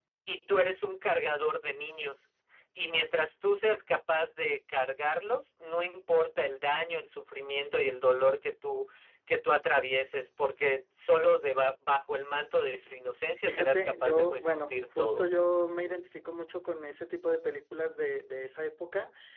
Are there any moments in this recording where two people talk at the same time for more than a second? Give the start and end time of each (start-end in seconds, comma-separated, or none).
13.4-15.2